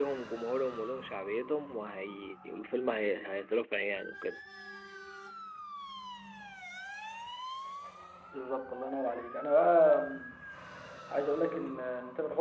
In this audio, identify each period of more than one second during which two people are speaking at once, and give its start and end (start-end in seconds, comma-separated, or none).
none